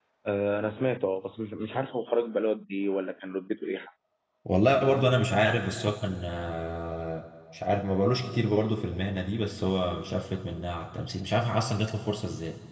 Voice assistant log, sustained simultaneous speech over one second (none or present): none